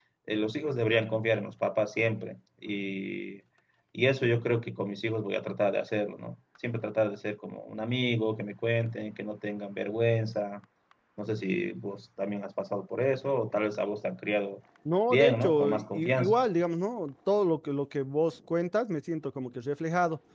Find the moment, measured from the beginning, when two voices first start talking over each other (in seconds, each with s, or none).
15.1 s